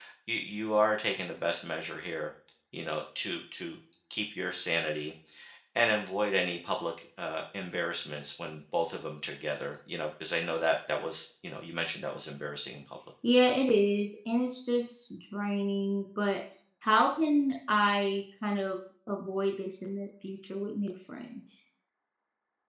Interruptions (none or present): none